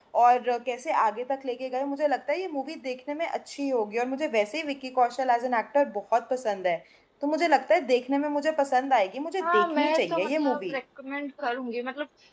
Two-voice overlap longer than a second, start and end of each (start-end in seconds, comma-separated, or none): 9.4-10.8